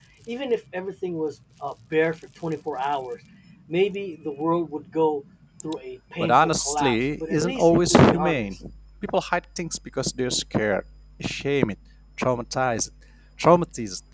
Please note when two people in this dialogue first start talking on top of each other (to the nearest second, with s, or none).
6 s